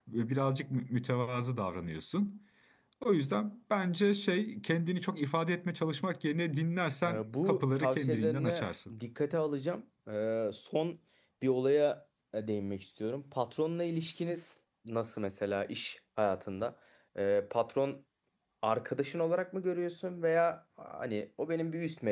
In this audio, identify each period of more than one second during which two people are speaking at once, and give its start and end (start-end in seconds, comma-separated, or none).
7.0-8.9